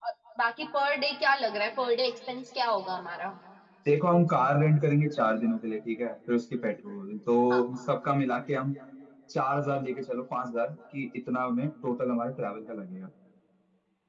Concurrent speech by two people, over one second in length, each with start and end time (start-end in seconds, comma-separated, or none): none